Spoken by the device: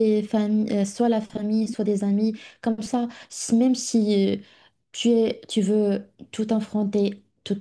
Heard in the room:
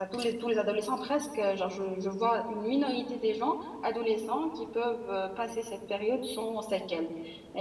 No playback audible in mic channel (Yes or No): Yes